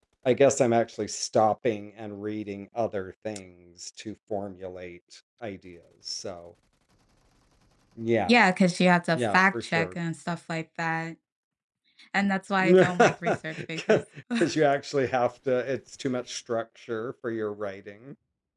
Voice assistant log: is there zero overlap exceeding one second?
No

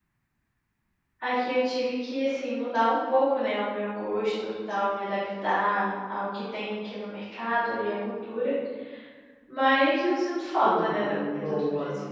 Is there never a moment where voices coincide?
No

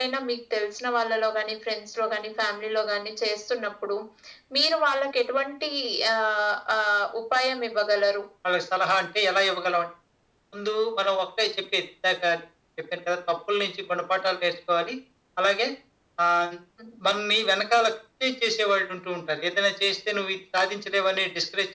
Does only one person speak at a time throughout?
Yes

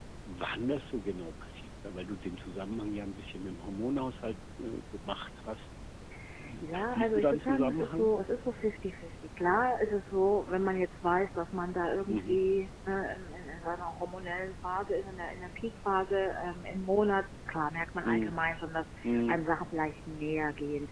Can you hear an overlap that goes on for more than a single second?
Yes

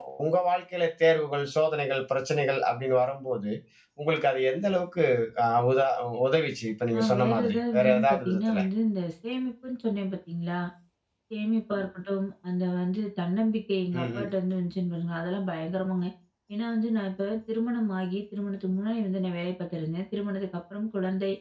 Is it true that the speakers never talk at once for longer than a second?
No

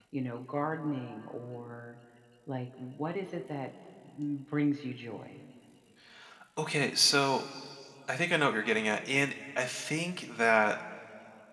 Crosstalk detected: No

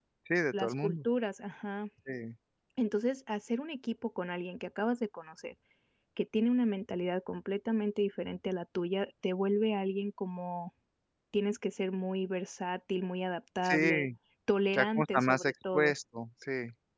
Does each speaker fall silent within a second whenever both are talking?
No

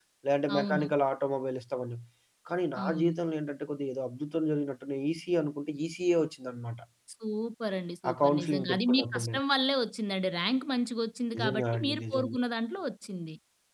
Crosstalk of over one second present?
Yes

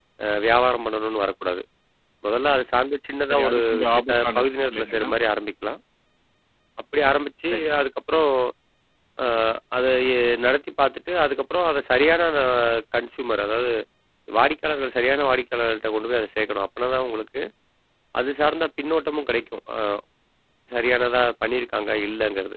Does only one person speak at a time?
No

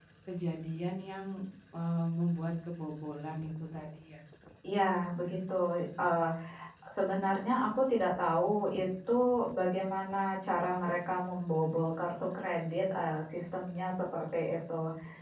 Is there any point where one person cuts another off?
No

